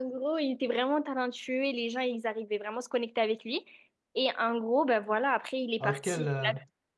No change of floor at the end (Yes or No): No